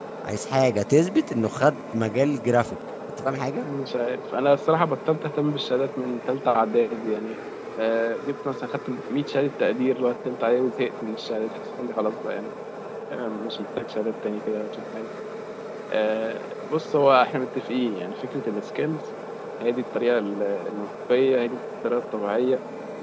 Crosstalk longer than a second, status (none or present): none